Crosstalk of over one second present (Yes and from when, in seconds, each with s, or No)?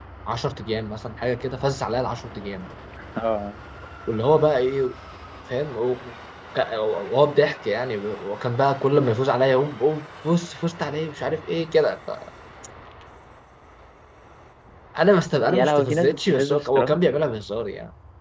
Yes, from 15.5 s